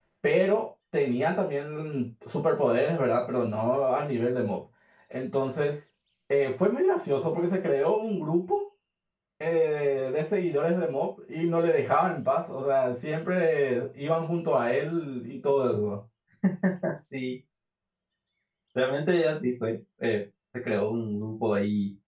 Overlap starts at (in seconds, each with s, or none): none